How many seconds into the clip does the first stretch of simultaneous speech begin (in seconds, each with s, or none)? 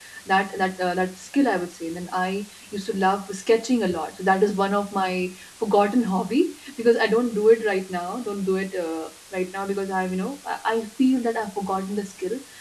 none